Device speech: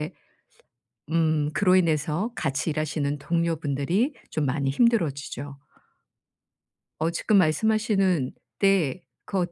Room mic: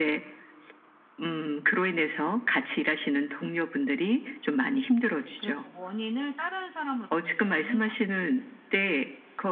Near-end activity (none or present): present